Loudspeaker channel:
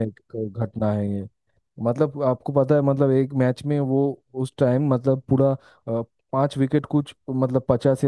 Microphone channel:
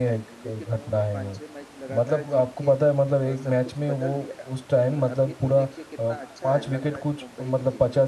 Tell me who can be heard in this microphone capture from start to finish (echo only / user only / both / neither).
both